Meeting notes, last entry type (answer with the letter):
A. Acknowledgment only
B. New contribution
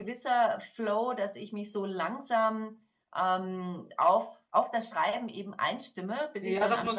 B